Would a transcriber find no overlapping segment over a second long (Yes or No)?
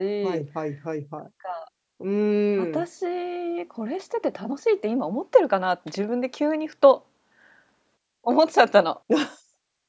Yes